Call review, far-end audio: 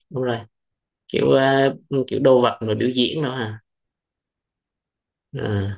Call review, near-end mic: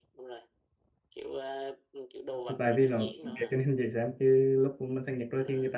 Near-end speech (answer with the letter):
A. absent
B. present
B